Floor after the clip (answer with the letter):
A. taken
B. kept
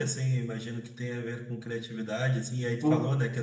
B